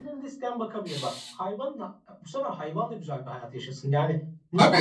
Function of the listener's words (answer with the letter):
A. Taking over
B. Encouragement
A